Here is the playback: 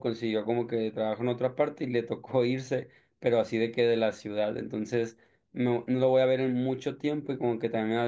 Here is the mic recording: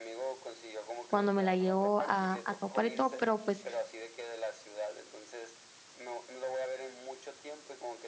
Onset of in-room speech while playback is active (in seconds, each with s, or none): 1.1 s